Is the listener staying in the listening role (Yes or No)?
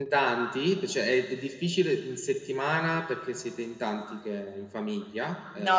No